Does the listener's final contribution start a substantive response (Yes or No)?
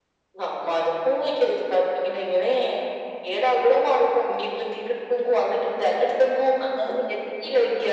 No